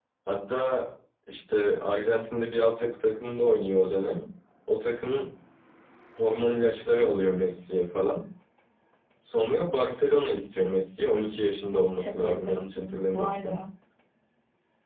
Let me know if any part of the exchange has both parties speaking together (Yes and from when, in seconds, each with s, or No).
Yes, from 11.9 s